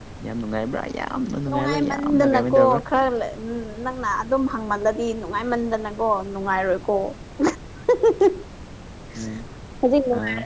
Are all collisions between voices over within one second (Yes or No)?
No